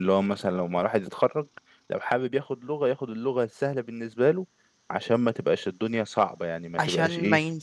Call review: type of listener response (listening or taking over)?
taking over